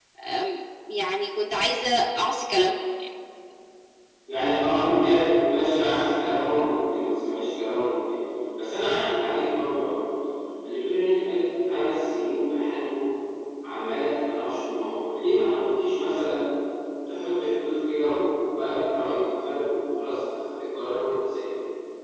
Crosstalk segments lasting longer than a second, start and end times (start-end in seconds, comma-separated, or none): none